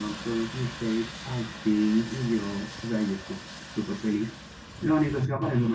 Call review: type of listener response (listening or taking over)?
listening